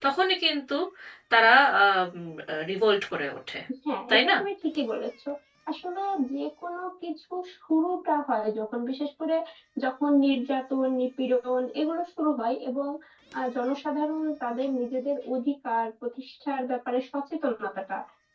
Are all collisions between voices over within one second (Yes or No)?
Yes